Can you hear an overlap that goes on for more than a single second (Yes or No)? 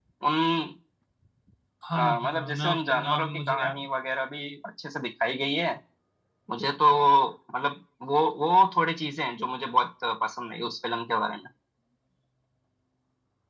Yes